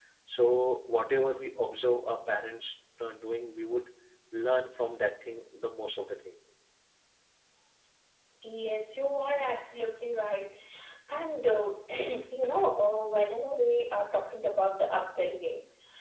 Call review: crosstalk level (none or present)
none